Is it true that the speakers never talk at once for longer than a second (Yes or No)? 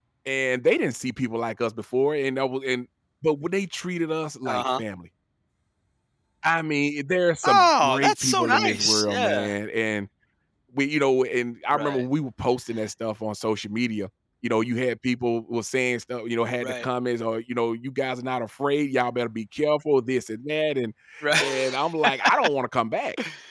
No